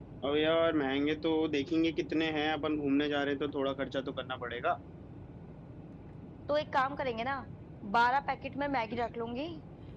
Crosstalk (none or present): none